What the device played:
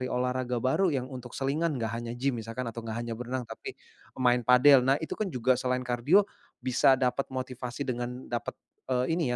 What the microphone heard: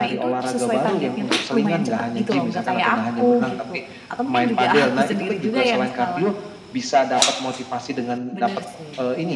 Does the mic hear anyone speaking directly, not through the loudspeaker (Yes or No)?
Yes